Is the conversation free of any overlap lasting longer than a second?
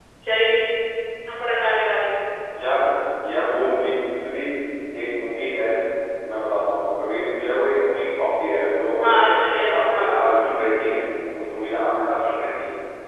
No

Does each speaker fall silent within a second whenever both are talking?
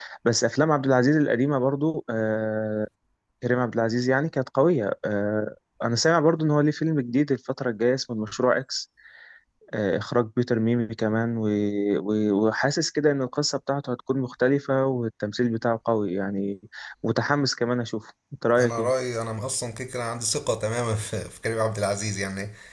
Yes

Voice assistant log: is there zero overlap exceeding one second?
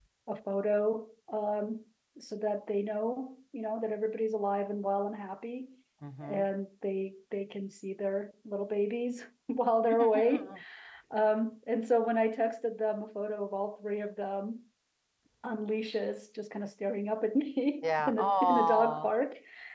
No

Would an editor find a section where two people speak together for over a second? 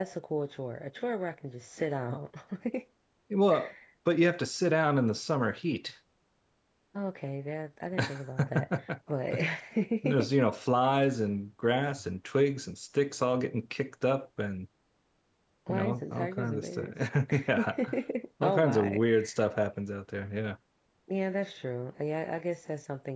Yes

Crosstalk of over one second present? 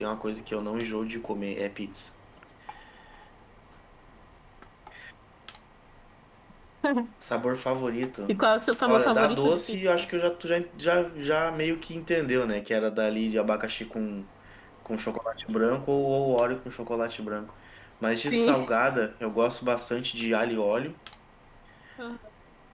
Yes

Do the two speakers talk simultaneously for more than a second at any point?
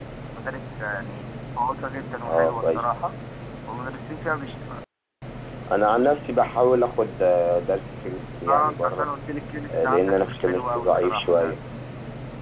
Yes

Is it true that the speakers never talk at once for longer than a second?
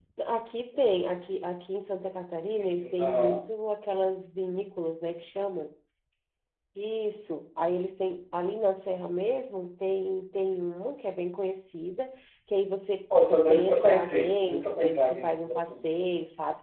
No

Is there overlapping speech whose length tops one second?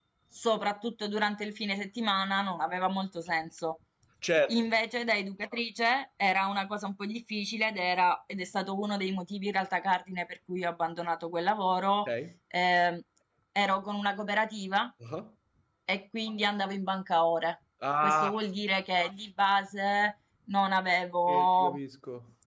No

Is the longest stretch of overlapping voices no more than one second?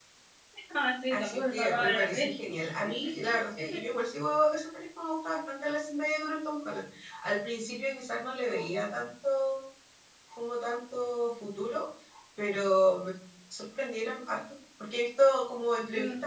No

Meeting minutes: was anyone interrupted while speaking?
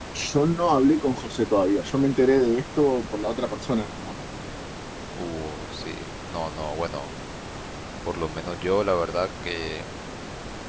No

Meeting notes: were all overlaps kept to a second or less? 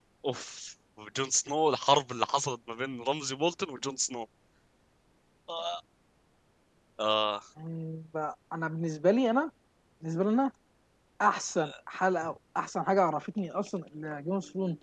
Yes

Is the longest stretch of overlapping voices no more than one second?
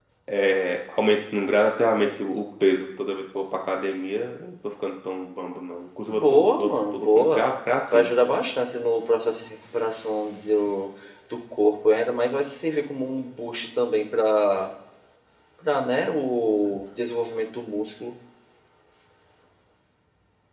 No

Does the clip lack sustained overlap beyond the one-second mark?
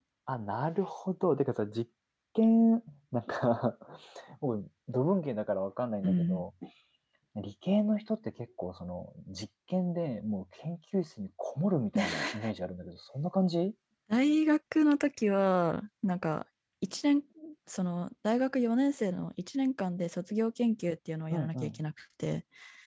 Yes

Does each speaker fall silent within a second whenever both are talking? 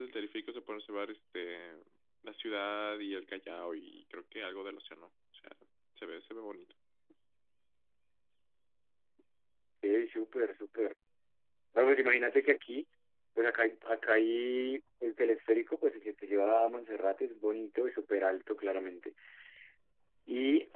Yes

